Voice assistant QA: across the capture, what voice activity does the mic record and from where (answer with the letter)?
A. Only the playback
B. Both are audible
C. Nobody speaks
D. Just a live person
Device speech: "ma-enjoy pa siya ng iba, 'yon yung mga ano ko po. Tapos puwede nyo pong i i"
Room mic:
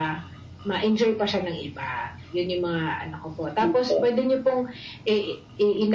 B